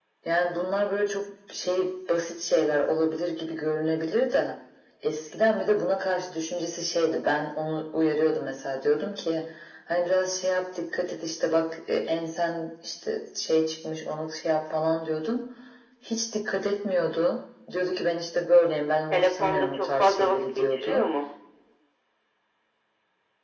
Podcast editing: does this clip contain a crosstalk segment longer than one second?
Yes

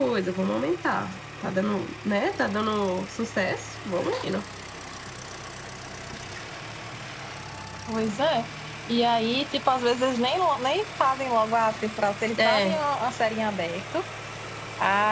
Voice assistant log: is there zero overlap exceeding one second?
Yes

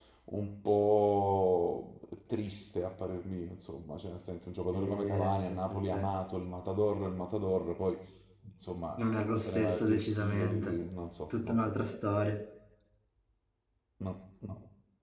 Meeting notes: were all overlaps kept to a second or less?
No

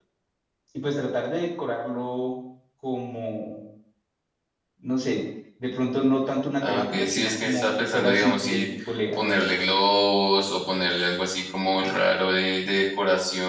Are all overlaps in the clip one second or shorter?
No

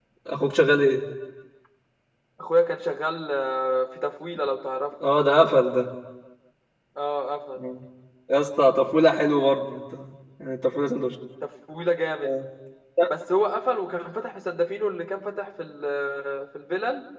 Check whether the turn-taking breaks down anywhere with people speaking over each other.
No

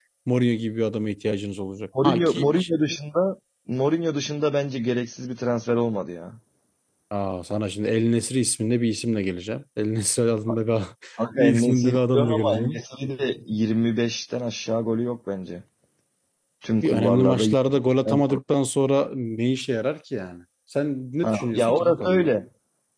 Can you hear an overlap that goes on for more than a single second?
Yes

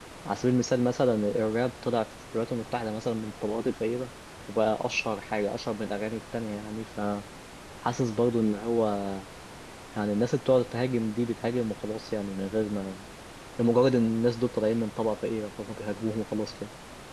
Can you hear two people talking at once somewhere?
No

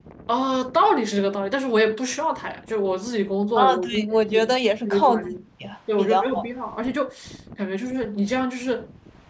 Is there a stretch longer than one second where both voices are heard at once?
Yes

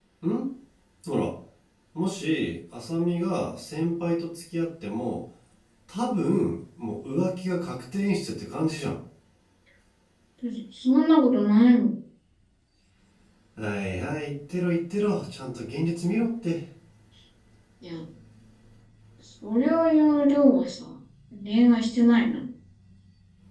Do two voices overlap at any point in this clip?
No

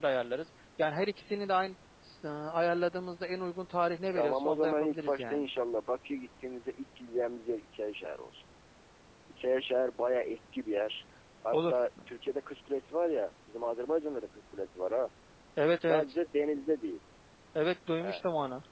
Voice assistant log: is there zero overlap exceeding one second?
No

